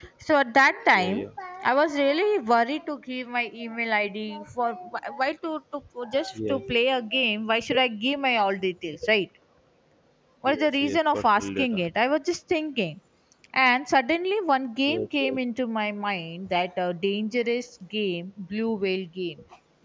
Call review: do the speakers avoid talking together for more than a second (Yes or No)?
No